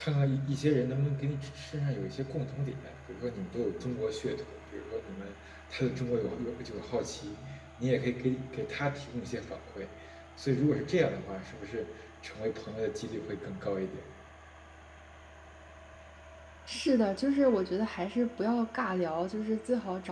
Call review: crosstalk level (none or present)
none